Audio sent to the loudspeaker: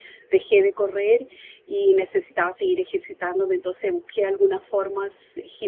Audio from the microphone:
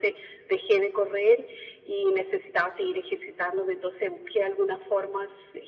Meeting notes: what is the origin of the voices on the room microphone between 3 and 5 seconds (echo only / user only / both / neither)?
echo only